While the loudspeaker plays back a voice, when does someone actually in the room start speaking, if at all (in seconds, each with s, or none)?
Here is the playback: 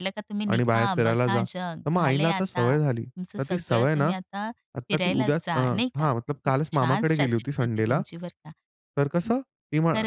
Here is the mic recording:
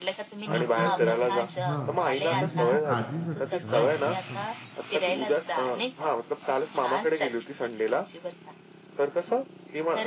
0.4 s